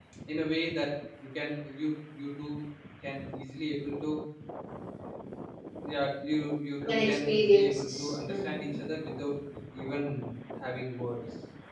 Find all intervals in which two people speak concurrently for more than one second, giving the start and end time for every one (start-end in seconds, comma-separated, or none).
6.9-8.8